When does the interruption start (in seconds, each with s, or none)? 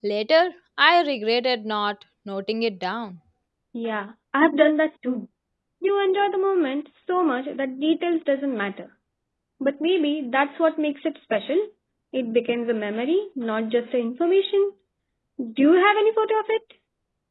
none